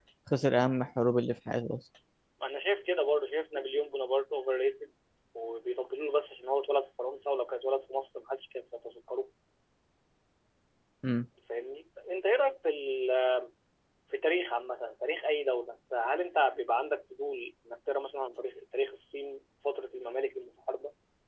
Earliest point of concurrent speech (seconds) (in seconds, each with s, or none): none